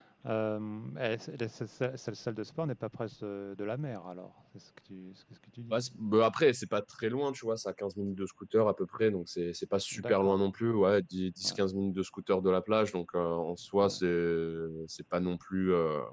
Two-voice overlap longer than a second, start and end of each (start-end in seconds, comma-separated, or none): none